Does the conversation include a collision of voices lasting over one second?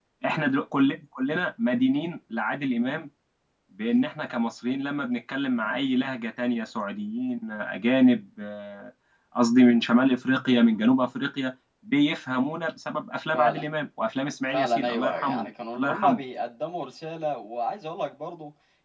Yes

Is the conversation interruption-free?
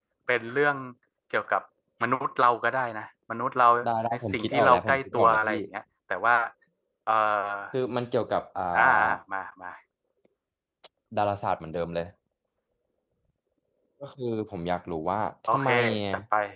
No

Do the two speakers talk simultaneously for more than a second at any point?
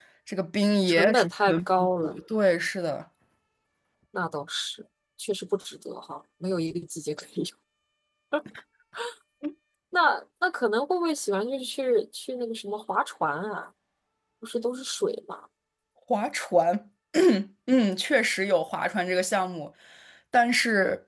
Yes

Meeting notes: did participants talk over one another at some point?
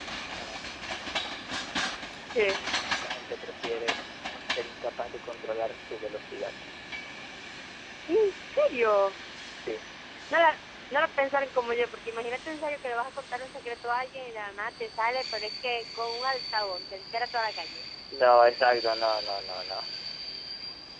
No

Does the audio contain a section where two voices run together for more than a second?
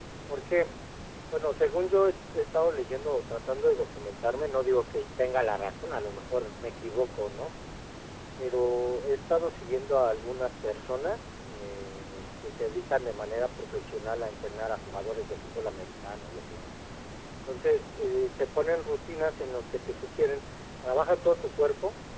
No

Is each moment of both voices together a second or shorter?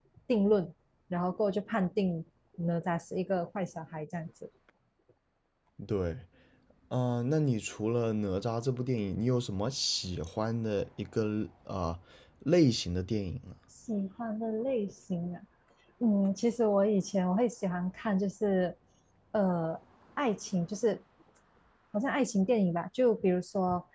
Yes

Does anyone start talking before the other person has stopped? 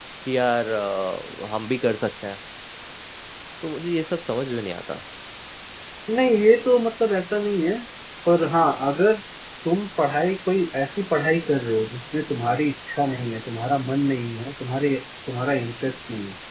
No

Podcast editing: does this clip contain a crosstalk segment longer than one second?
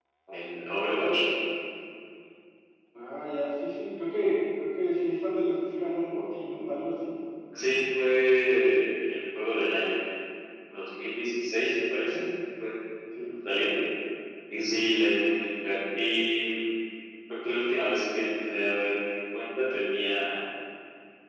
No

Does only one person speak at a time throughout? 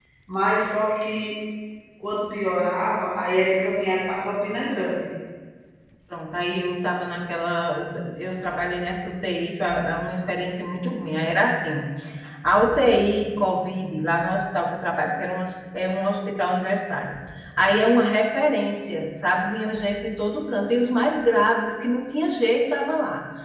Yes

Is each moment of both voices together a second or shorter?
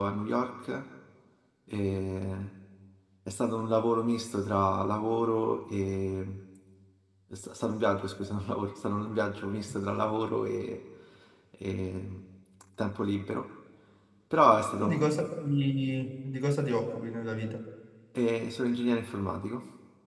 Yes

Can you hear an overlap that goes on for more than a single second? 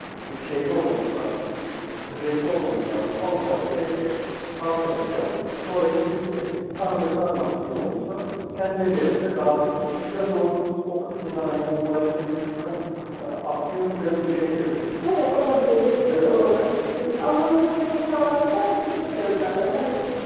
Yes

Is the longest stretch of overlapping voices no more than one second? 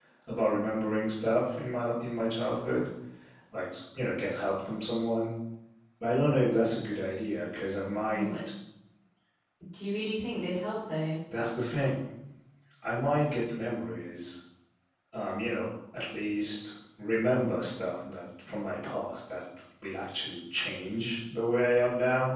Yes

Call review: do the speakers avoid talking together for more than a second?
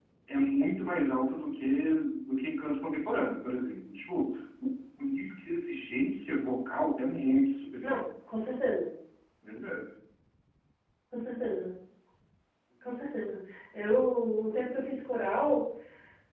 Yes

